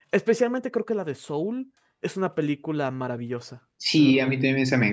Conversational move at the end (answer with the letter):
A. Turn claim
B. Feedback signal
A